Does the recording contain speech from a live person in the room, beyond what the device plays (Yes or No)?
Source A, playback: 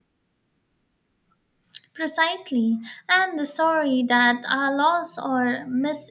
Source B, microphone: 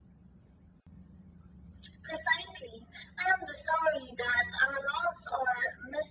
No